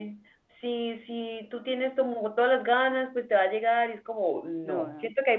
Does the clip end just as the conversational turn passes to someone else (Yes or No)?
No